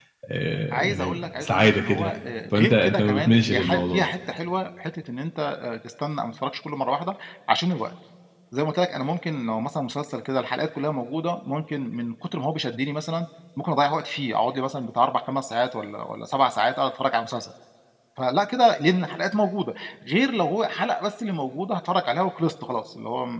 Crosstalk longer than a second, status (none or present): present